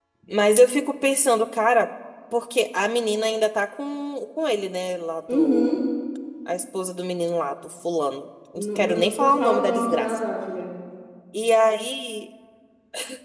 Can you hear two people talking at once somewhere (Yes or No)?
Yes